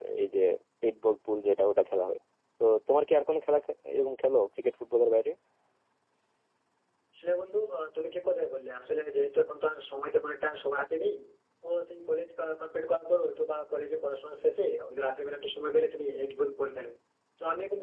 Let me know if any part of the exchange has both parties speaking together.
No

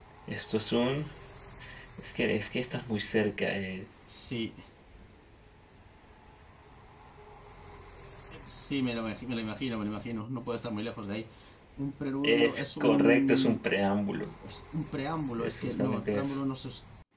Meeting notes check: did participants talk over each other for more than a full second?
Yes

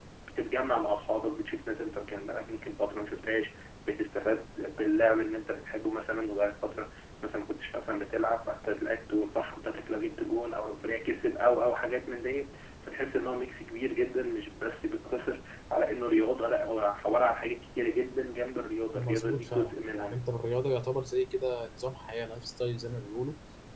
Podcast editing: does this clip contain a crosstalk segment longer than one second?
Yes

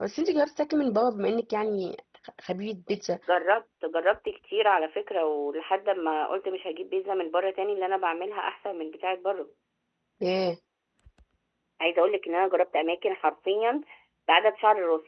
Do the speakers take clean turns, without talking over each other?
Yes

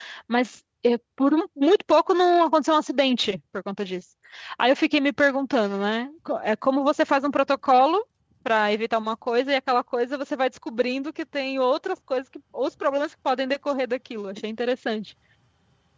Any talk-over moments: No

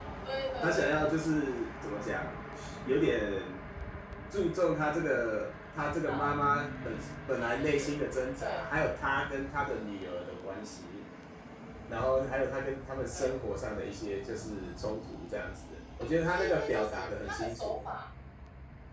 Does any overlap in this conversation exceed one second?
Yes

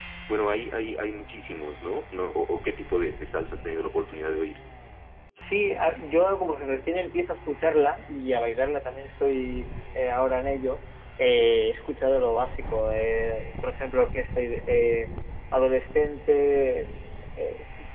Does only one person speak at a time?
Yes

